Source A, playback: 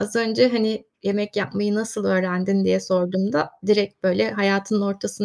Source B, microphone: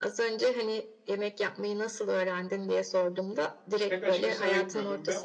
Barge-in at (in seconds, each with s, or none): 3.9 s